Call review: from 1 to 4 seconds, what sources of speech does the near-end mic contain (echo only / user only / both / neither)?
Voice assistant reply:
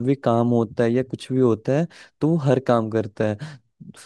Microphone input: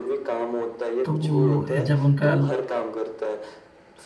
both